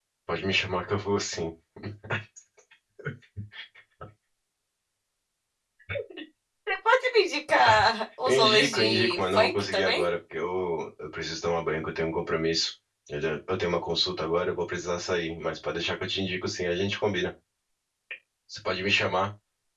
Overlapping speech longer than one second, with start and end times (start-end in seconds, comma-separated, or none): 8.3-10.1